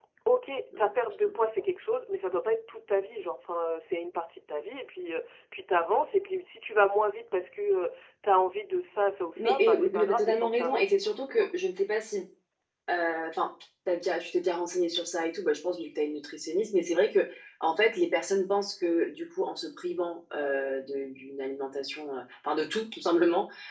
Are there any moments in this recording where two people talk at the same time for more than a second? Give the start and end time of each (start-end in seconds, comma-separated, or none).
9.4-11.5